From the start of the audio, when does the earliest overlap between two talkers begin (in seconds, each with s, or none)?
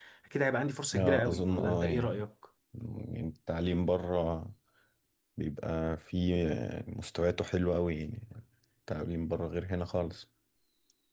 0.9 s